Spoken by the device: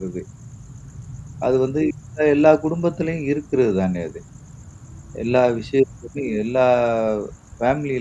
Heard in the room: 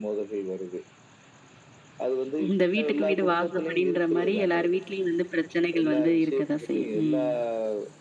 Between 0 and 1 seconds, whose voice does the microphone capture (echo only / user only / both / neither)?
echo only